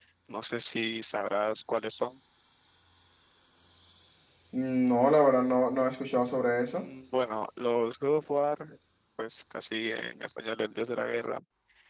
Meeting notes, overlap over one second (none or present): none